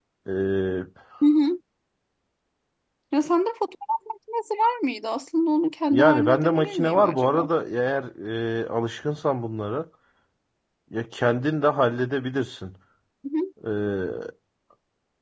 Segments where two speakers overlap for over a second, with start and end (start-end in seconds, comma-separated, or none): 5.9-7.5